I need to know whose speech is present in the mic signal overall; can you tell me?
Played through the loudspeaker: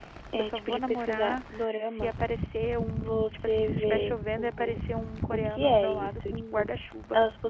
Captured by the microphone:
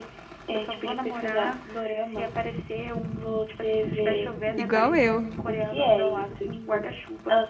both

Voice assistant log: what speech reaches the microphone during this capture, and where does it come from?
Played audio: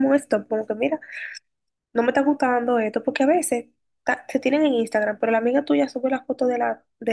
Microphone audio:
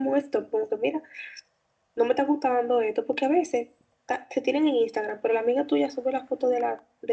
echo only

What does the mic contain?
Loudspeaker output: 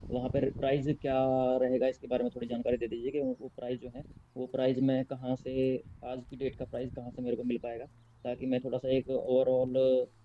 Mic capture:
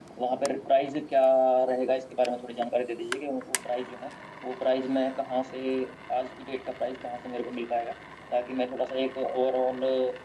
echo only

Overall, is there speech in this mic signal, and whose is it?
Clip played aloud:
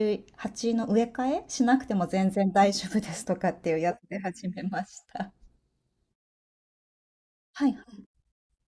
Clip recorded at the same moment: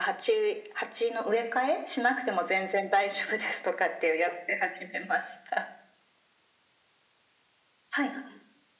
echo only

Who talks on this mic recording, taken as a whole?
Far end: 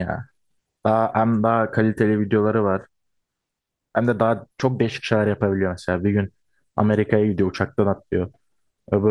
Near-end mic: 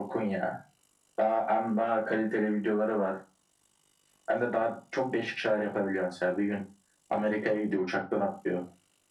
echo only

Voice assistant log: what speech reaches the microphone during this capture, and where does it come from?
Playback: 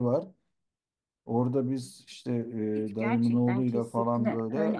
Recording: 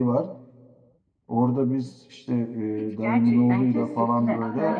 both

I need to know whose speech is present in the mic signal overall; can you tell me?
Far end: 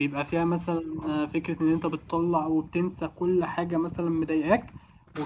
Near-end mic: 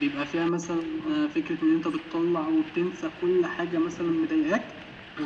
echo only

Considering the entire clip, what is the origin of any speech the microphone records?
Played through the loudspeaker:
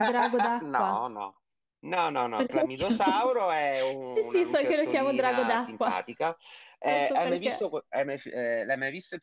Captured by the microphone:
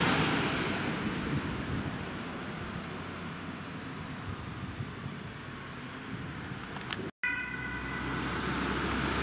neither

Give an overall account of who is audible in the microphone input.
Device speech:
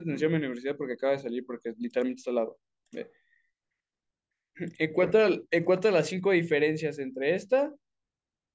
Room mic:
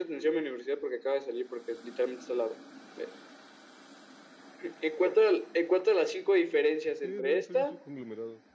both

